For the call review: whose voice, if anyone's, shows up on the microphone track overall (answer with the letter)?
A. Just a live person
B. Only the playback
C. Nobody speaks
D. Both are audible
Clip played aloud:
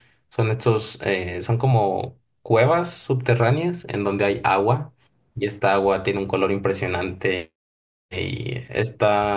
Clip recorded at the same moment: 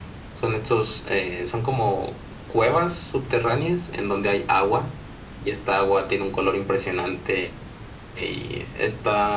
B